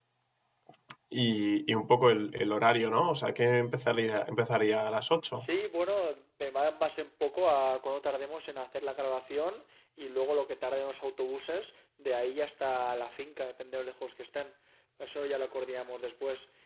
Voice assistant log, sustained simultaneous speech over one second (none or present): none